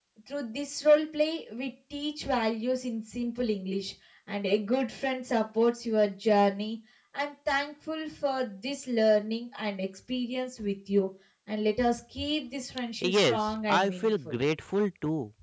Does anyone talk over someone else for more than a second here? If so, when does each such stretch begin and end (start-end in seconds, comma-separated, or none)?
13.0-14.3